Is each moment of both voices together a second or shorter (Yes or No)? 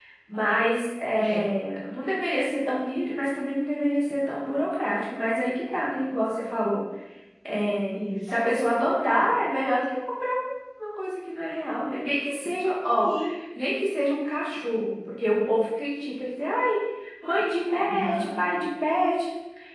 Yes